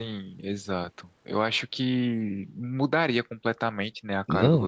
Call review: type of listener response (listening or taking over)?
taking over